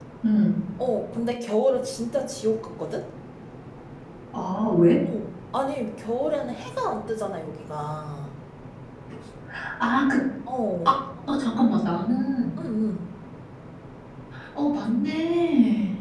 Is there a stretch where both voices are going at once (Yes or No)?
No